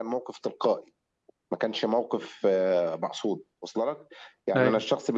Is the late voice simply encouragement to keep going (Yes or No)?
Yes